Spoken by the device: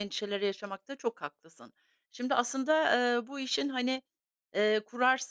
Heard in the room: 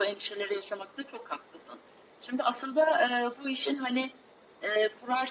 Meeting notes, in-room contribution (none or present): none